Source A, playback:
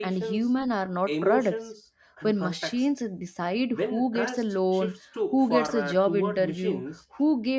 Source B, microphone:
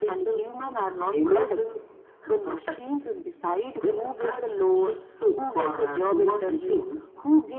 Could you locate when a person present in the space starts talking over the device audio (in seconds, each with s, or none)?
none